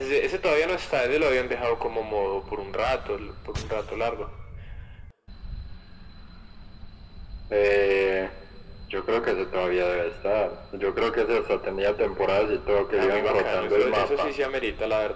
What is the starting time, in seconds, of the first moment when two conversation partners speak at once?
12.9 s

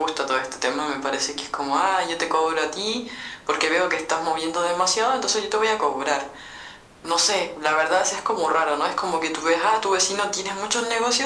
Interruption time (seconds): none

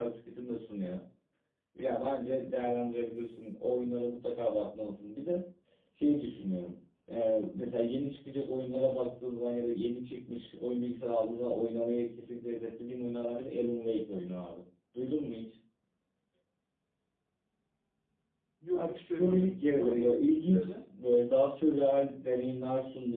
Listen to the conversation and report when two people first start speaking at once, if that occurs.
18.7 s

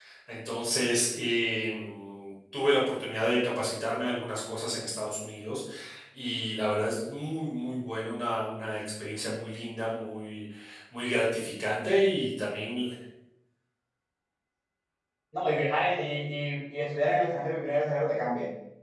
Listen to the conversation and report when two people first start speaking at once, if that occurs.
none

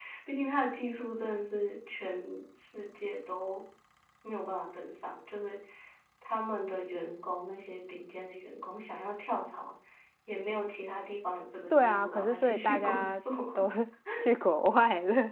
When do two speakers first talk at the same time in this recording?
11.7 s

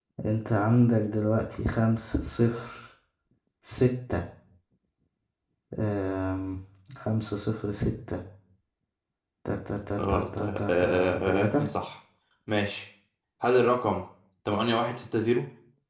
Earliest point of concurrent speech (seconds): 10.1 s

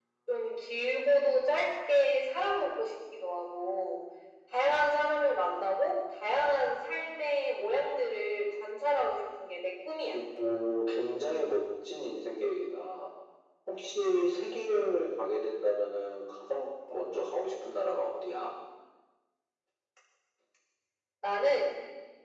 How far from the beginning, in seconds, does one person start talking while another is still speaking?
none

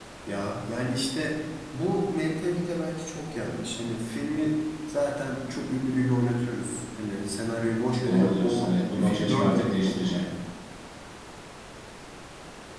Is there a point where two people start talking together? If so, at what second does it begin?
8.1 s

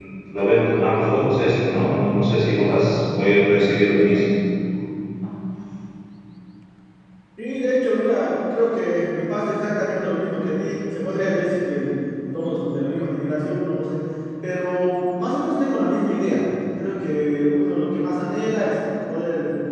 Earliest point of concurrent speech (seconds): none

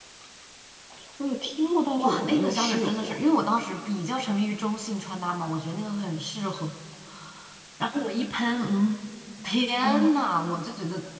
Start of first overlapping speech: 2.0 s

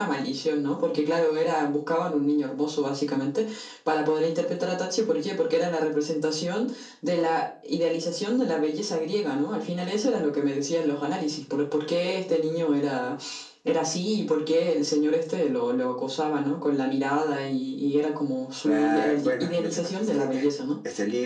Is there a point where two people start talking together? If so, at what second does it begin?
18.6 s

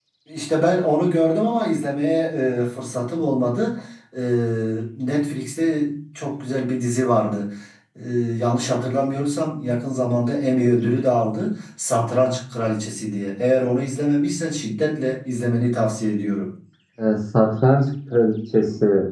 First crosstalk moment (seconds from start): none

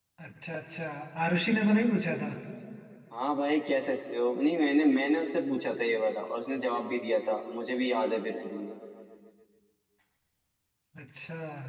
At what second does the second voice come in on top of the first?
none

